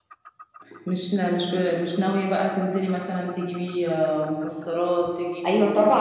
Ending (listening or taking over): taking over